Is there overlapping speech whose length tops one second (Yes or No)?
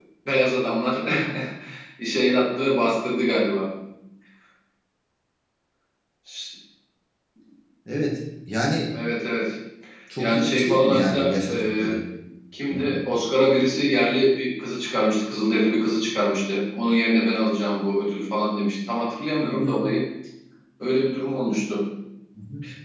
Yes